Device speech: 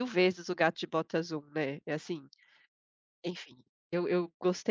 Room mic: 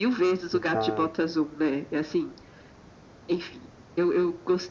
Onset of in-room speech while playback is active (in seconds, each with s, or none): 0.4 s